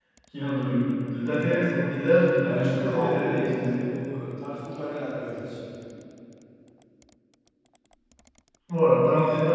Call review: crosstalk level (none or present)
present